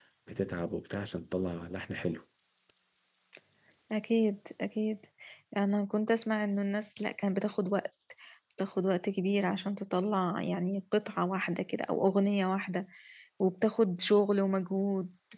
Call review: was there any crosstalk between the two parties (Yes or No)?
No